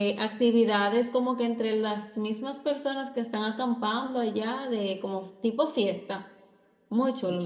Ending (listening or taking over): taking over